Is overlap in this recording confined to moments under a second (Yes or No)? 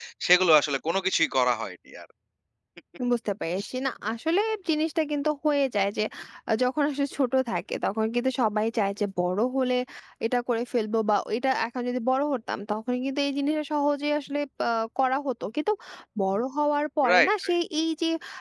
Yes